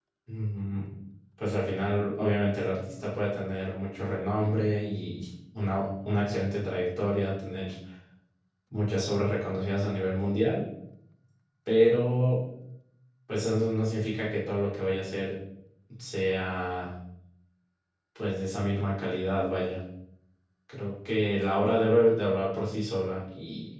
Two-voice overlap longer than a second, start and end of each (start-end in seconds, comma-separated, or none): none